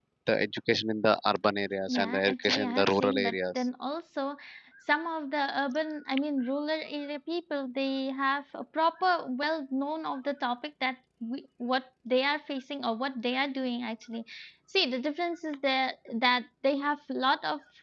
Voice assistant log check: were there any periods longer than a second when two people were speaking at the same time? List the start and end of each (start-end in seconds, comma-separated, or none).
1.9-3.6